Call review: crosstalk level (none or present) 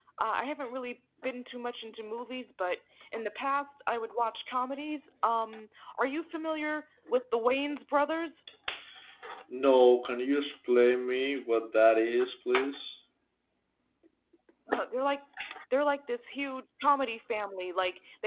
none